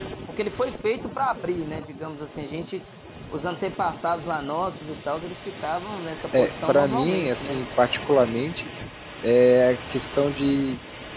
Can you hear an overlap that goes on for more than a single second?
Yes, from 6.3 s

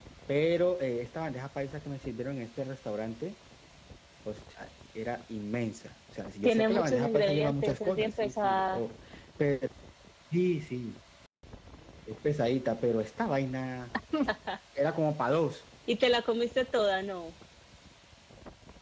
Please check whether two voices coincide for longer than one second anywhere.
Yes, from 6.4 s

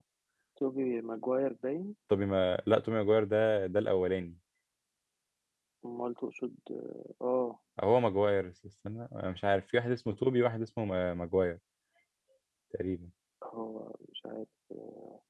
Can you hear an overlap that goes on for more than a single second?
No

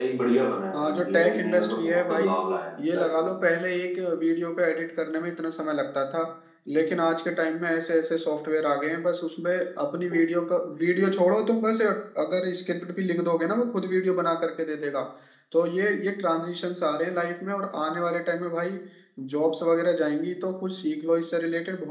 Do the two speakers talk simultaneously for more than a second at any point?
Yes, from 0.7 s

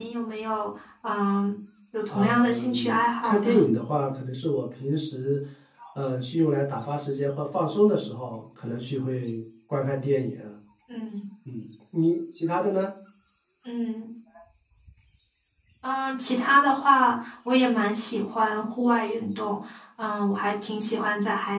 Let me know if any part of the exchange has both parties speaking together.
Yes, from 2.1 s

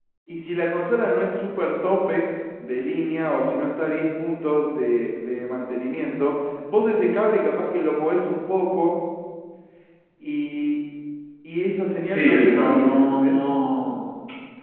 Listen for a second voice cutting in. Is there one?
Yes, from 12.0 s

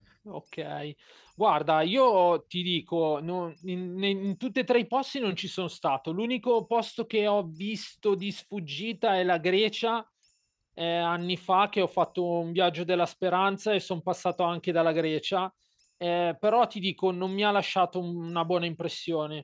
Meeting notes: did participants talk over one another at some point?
No

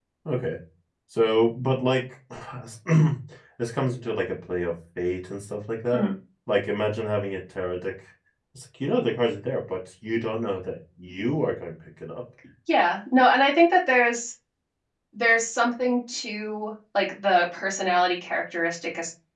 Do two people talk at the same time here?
No

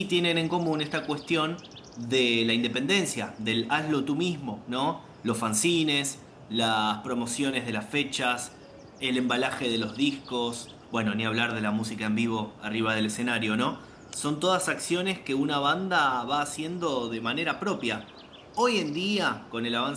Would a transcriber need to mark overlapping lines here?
No

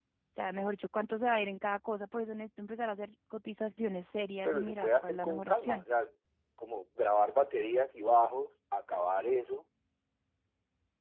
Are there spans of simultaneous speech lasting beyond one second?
Yes, from 4.4 s

